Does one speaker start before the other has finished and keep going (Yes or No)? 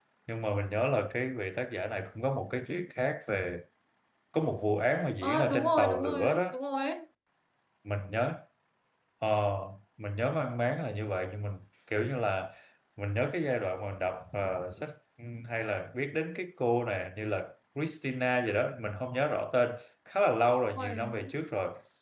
Yes